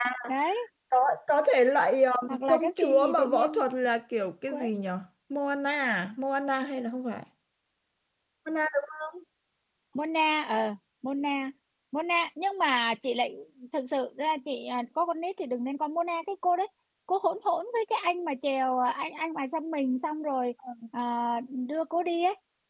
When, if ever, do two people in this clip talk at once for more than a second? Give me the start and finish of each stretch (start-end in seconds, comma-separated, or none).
2.3-3.6